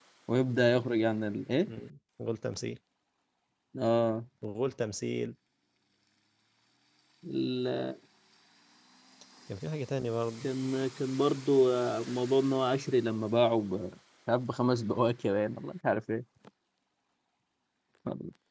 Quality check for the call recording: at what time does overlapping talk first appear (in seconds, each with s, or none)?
none